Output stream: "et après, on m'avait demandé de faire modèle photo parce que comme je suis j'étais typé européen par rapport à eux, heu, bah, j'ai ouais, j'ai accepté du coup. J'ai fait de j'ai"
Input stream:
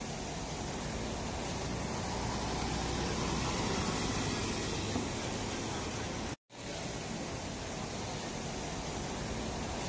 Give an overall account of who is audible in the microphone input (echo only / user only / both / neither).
neither